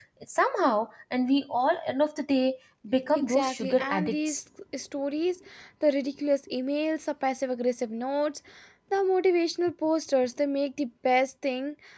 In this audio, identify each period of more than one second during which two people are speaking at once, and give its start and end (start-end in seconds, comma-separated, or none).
3.1-4.4